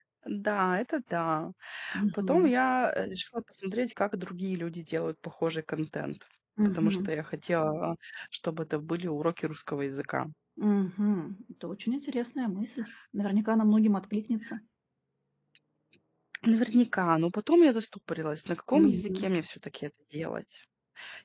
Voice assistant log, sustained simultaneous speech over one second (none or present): none